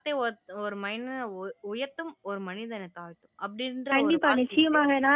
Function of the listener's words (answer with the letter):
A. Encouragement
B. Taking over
B